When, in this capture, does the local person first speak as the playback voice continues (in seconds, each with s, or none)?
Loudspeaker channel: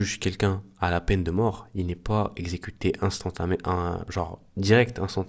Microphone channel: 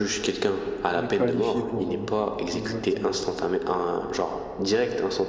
0.9 s